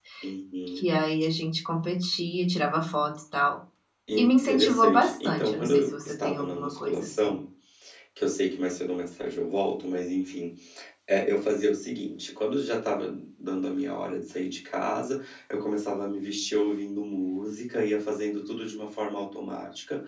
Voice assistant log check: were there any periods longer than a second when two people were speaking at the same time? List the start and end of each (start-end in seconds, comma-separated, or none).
4.2-7.3